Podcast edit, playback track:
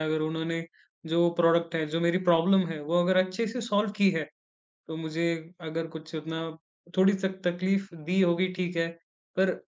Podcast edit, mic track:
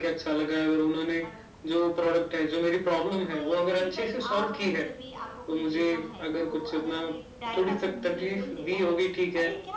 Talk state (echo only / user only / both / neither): both